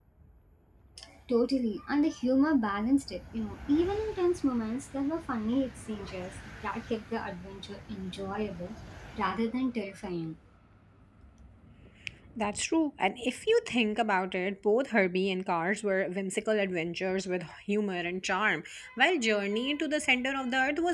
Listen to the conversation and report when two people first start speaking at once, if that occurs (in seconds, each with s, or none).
none